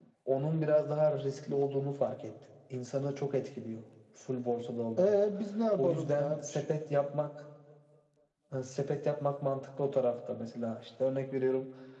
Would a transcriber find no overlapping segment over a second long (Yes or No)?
No